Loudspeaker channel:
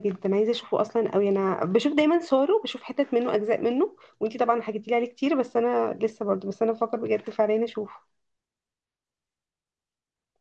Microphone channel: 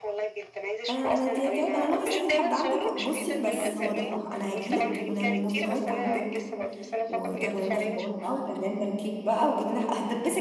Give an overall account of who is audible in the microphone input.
both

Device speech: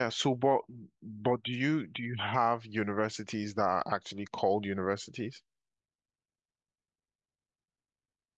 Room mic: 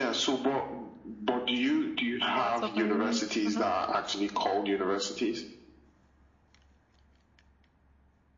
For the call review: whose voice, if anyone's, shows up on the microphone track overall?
both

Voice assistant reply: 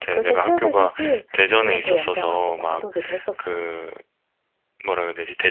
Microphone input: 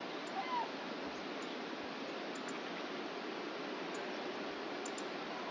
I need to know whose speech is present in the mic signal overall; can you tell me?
neither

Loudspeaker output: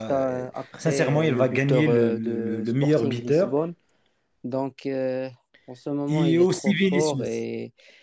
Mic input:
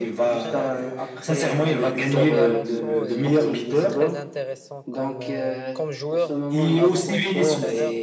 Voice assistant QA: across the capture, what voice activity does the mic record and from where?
both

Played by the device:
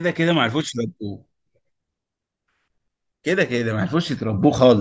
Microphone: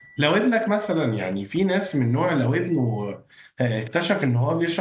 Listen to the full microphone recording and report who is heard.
user only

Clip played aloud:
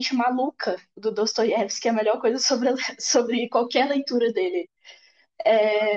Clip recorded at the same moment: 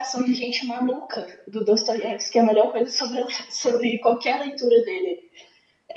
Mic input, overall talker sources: echo only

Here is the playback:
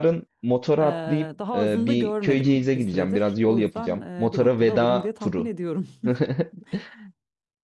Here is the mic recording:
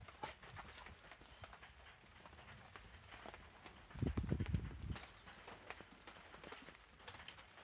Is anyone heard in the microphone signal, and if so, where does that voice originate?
neither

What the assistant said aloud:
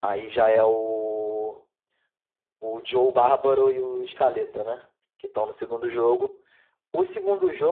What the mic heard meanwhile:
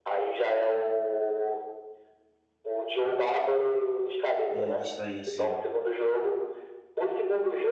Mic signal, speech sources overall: both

